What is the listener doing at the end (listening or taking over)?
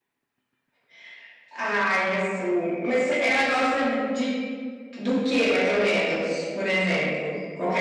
taking over